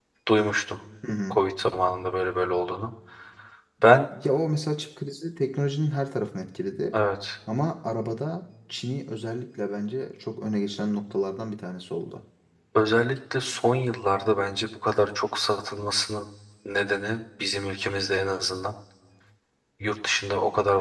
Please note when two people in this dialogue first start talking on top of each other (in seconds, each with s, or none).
none